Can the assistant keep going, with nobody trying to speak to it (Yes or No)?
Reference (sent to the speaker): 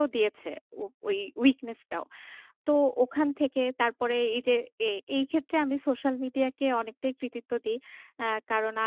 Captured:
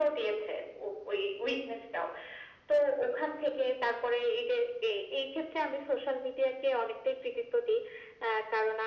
Yes